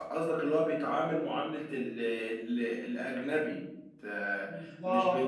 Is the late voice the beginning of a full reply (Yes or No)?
No